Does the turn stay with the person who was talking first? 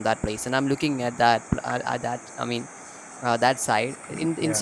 Yes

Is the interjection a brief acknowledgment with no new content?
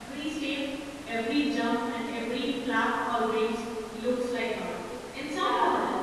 No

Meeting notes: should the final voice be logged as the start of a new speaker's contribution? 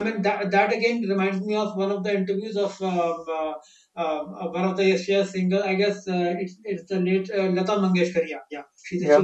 No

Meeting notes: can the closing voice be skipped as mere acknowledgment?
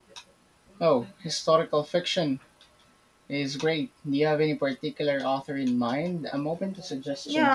No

